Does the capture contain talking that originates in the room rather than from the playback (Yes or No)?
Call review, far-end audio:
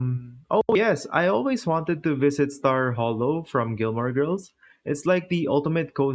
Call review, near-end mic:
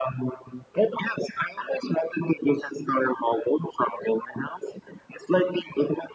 No